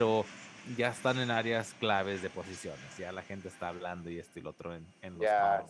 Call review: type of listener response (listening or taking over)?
taking over